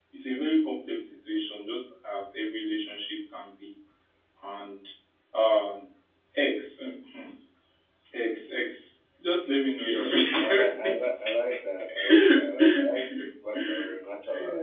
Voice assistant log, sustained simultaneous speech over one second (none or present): present